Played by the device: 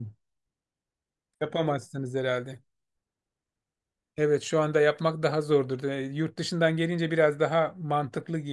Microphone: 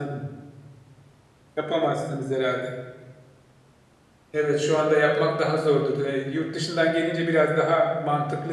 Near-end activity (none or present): none